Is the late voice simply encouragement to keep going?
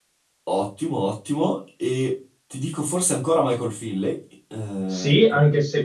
No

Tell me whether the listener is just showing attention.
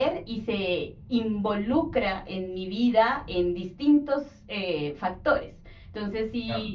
Yes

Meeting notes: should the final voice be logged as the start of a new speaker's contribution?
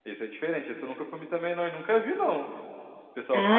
Yes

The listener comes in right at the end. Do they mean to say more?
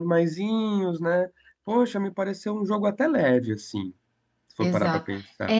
Yes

